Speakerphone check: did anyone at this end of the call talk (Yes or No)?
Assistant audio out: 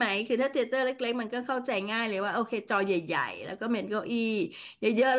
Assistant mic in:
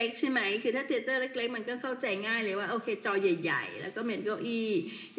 No